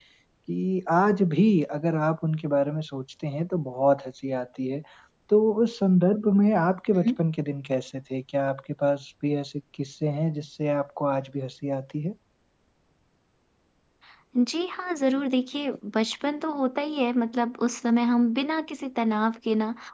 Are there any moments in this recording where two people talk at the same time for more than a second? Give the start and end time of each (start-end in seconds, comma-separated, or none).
none